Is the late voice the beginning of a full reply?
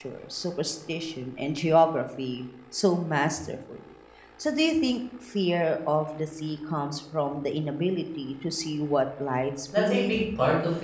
Yes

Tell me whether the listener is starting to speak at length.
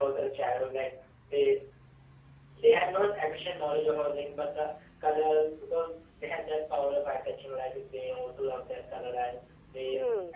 No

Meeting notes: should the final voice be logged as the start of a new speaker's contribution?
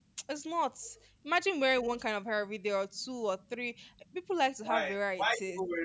Yes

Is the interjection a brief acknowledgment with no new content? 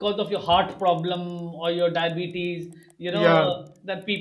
Yes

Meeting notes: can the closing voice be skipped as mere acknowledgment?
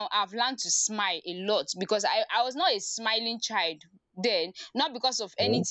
Yes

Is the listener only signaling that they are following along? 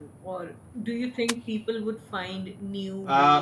No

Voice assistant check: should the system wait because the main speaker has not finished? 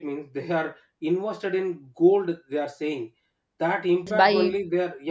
Yes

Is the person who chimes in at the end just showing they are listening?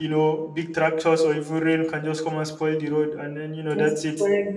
No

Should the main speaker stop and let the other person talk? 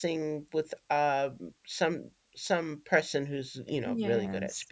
No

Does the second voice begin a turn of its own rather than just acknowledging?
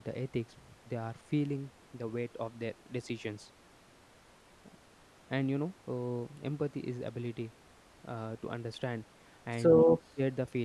No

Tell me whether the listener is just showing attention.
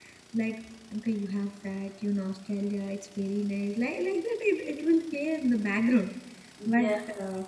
Yes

